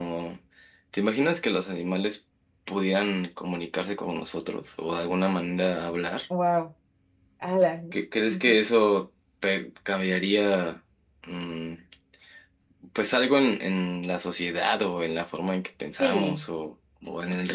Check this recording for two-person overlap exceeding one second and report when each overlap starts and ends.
none

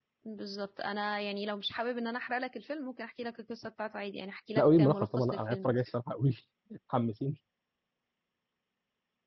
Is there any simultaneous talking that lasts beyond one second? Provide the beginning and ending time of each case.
4.6-5.8

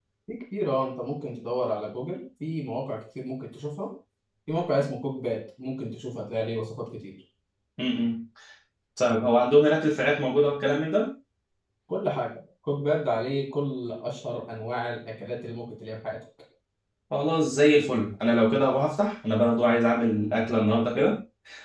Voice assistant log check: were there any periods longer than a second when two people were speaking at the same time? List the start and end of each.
none

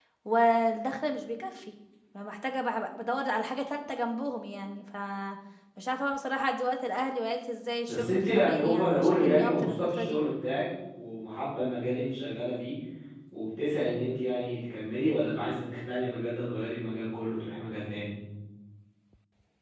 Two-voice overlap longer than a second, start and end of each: 7.9-10.2

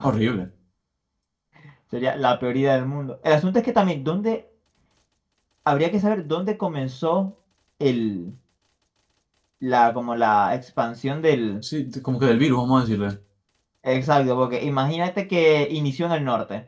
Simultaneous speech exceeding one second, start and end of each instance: none

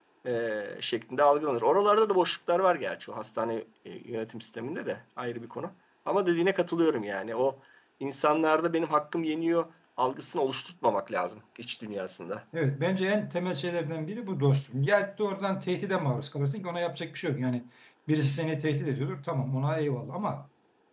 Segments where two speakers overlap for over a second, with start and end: none

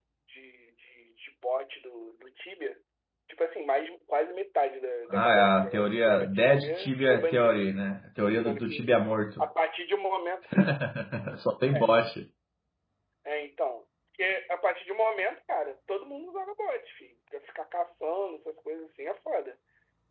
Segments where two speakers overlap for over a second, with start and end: 5.1-7.7

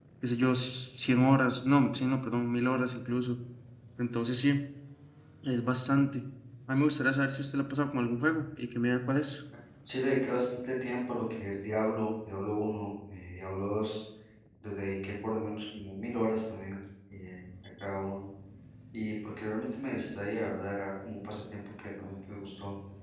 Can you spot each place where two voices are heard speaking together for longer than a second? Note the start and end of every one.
none

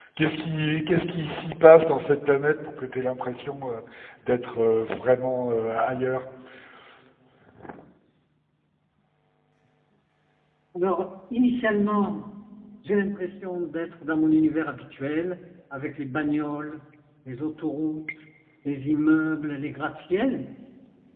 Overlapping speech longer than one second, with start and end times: none

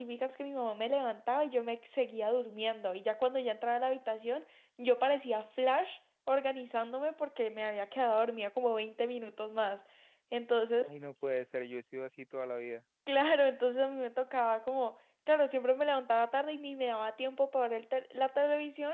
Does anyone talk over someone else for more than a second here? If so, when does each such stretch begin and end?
none

